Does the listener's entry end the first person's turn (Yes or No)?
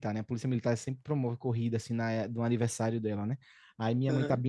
No